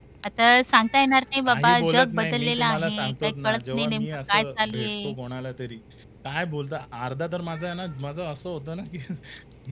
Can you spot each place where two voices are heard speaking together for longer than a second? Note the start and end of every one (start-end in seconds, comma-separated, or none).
1.5-5.1